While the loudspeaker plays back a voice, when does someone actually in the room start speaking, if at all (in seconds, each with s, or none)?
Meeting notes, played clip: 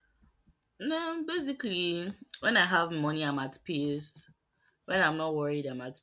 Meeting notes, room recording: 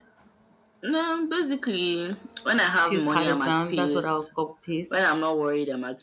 2.8 s